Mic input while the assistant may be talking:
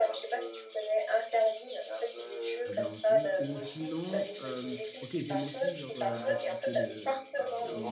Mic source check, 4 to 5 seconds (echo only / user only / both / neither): both